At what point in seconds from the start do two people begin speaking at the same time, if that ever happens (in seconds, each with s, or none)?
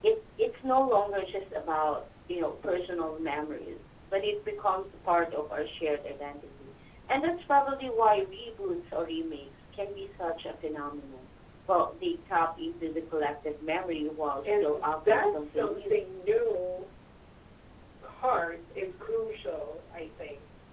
14.4 s